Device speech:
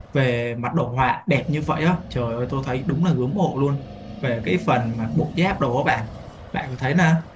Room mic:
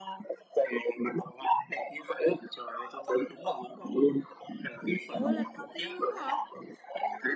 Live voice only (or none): ủa lần đầu tiên luôn á hả Ừ.